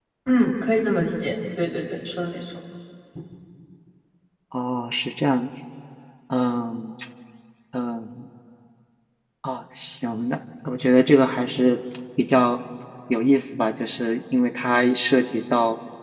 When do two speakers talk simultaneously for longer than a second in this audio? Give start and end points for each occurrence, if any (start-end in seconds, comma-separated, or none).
none